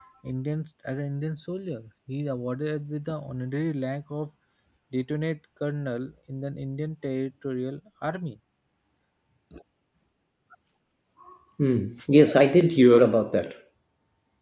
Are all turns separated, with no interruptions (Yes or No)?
Yes